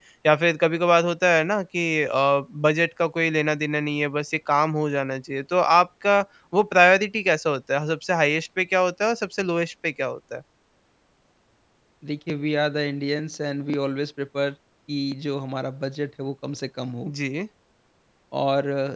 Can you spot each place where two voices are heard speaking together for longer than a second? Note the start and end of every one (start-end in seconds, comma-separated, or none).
none